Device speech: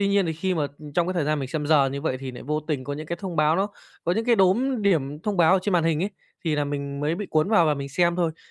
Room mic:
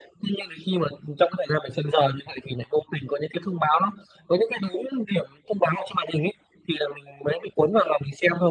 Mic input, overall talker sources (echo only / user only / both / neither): echo only